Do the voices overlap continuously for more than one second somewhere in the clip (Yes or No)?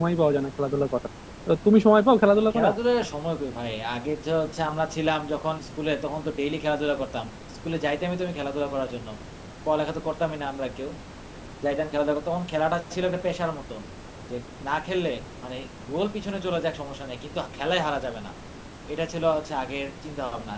No